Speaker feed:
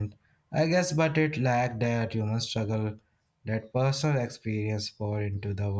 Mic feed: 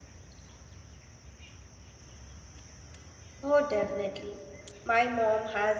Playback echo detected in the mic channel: No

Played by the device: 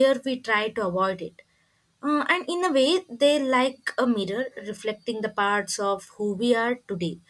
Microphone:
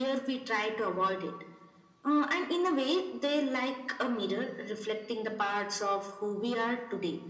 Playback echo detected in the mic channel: Yes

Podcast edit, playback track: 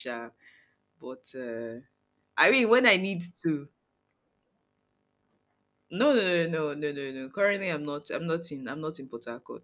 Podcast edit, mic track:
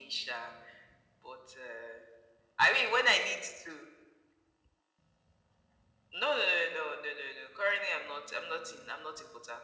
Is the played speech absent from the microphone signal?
No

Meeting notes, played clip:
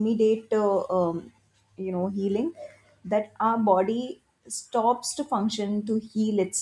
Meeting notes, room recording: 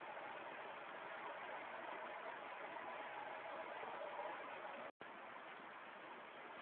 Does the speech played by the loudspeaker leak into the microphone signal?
No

